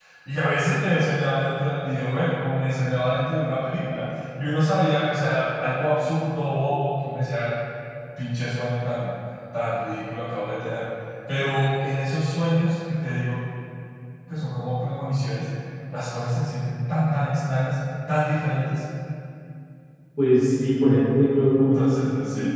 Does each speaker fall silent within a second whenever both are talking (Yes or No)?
Yes